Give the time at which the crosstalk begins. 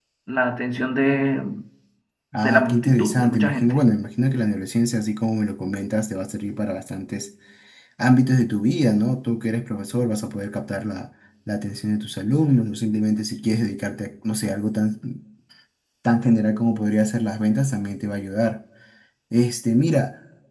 2.4 s

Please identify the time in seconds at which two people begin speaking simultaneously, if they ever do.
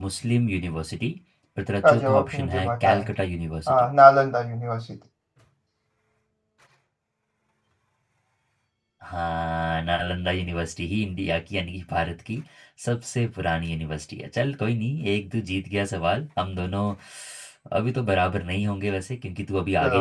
1.8 s

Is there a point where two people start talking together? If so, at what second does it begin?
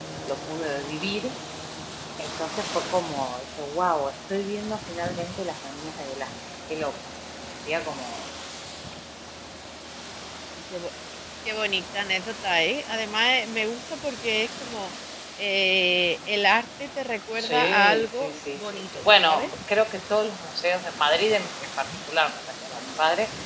17.3 s

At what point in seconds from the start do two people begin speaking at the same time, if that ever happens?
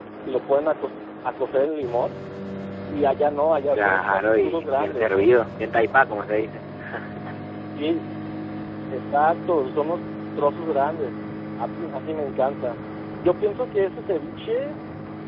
3.7 s

